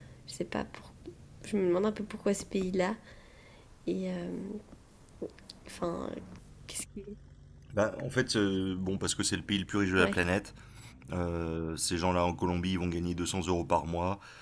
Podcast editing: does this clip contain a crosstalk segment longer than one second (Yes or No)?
No